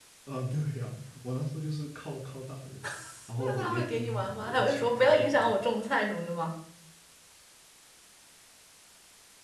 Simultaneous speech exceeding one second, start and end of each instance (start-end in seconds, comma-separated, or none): 3.4-5.6